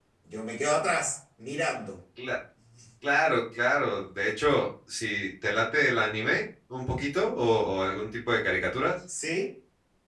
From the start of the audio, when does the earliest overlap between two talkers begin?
none

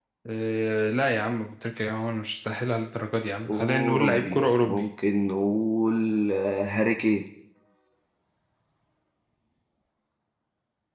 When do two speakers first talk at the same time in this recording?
3.5 s

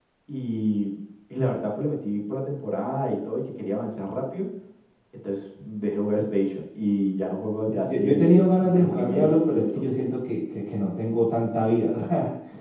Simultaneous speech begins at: 7.7 s

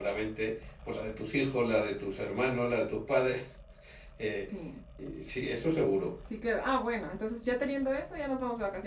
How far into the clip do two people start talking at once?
none

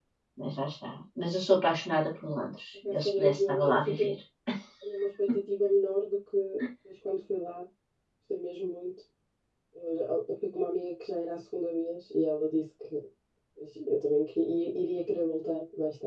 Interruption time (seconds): 2.8 s

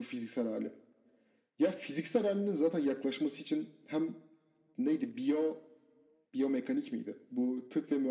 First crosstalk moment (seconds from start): none

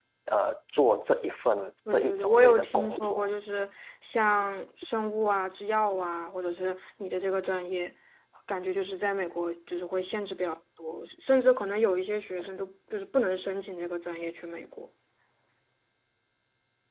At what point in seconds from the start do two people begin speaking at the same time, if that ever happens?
1.9 s

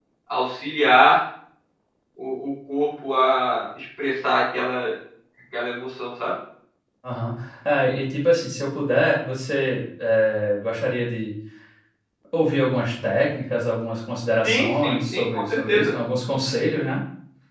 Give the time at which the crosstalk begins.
14.4 s

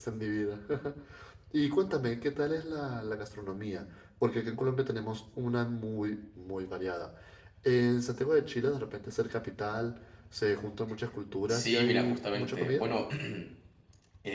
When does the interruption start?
11.5 s

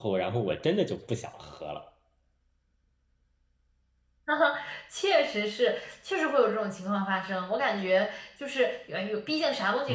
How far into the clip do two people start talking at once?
none

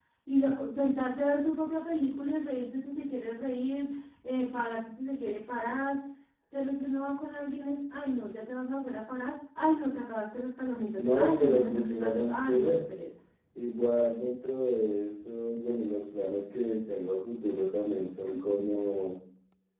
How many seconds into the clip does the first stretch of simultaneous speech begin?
11.0 s

